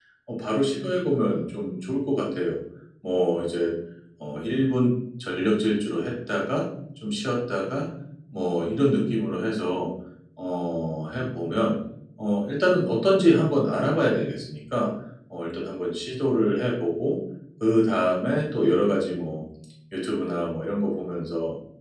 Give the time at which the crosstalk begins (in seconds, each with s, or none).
none